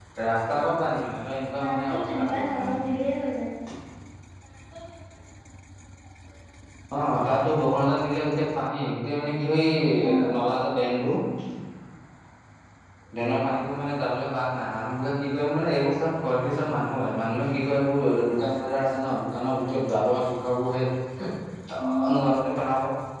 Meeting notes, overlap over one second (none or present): present